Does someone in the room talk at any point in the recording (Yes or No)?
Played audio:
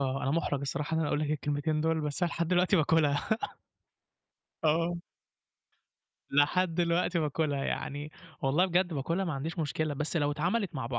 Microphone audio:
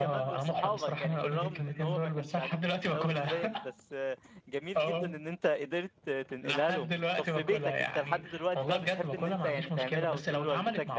Yes